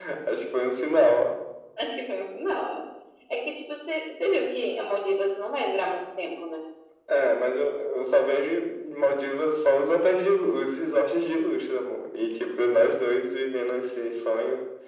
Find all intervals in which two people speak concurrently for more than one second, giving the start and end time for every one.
none

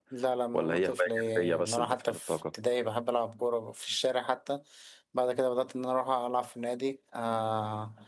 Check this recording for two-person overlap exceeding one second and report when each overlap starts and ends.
0.5-2.4

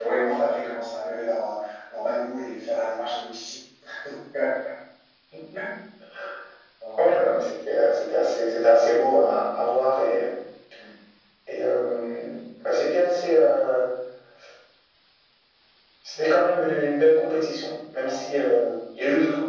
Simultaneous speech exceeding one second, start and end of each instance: none

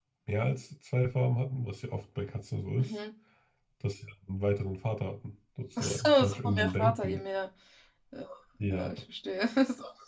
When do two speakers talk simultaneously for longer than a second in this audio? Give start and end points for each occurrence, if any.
5.8-7.2

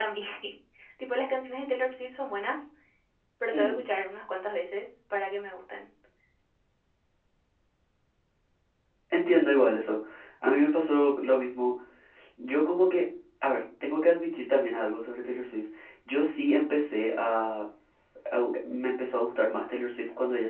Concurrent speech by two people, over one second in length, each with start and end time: none

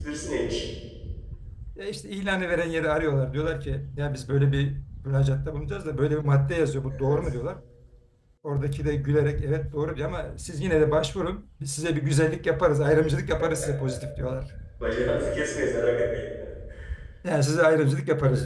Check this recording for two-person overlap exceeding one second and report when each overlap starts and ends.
none

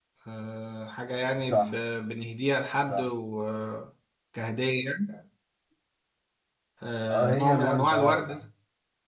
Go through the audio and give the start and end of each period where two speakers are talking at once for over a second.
7.1-8.4

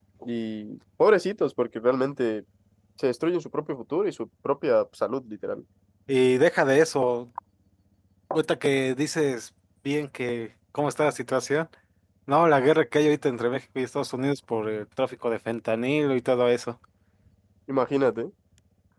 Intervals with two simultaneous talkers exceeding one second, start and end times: none

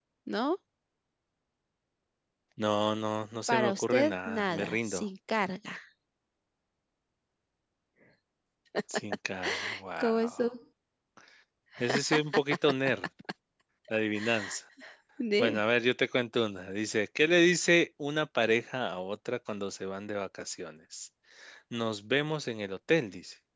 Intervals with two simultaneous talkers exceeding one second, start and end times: 3.5-5.0

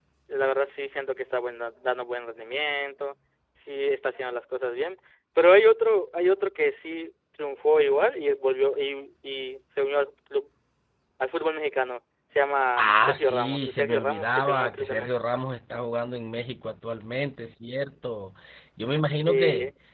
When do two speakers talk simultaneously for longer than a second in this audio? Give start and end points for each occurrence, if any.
12.8-15.1

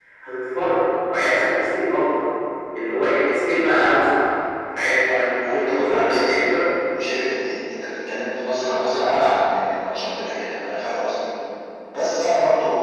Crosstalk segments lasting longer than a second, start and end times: 5.1-6.4

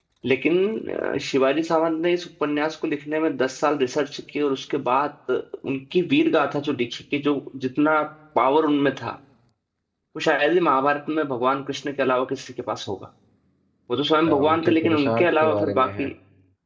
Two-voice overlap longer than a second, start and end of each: 14.3-16.1

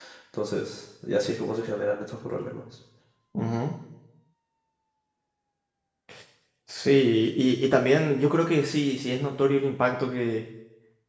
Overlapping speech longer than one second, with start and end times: none

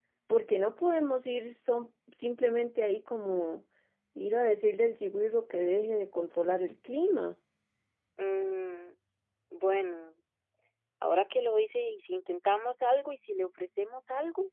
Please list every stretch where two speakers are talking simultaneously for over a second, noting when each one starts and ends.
none

